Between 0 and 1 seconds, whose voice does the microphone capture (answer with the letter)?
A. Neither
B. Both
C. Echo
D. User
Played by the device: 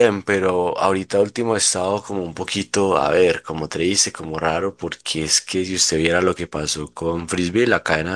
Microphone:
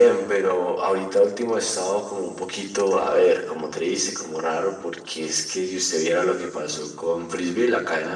C